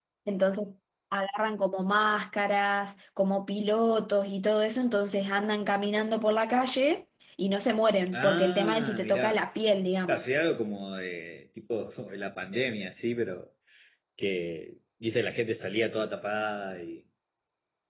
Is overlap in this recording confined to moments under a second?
No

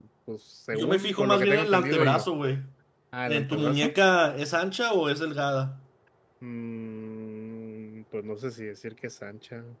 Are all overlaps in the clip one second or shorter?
No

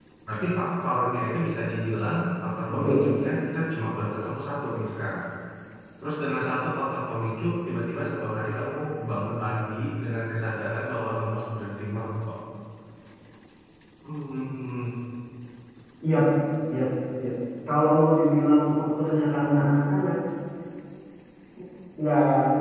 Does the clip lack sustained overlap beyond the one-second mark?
Yes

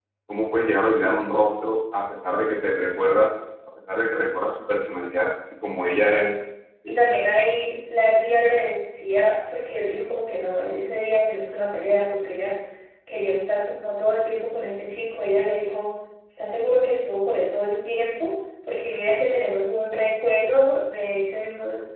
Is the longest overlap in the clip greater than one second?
No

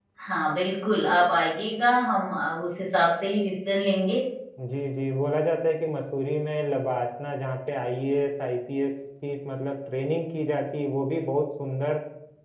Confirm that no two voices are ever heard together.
Yes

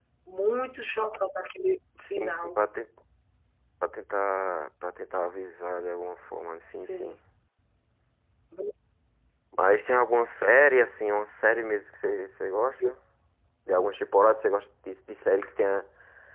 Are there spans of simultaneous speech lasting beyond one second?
No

